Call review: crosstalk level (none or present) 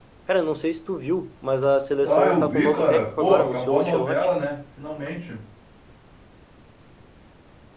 present